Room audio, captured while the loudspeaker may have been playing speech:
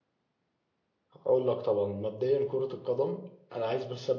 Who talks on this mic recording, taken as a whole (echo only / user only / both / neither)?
user only